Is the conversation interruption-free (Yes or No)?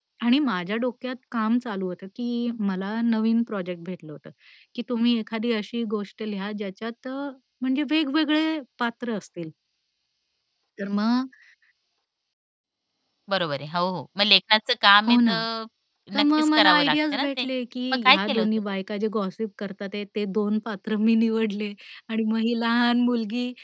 No